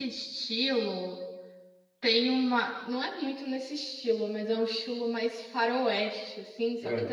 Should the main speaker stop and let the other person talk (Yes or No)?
No